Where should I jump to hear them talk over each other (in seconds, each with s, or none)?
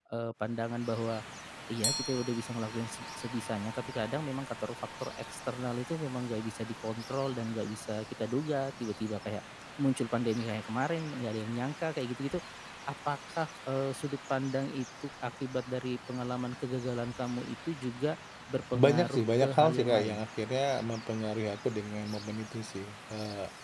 18.7 s